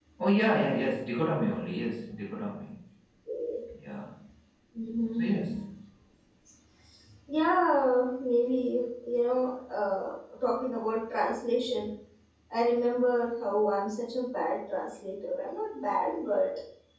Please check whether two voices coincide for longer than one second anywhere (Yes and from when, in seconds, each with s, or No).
No